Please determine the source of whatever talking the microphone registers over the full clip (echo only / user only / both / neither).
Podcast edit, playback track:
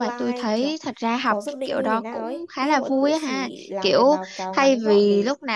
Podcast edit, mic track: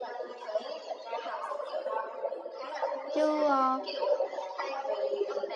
both